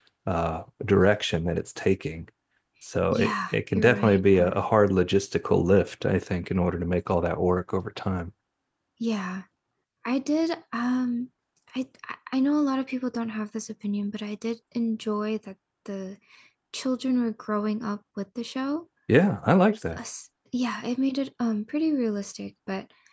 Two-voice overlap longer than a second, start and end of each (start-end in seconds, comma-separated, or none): 3.1-4.7